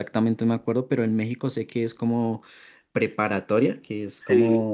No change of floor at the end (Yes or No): Yes